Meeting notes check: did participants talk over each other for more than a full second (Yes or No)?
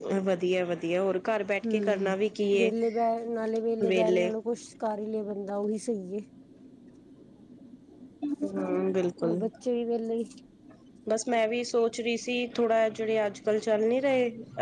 No